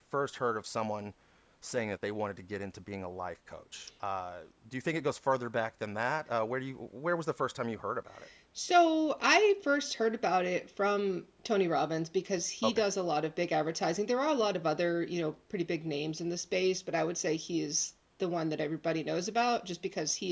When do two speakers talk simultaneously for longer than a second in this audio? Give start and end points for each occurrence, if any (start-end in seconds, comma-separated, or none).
none